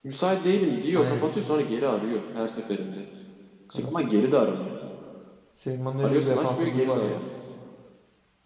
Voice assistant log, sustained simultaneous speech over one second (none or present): present